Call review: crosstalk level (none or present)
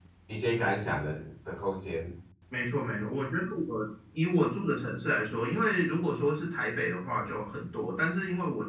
none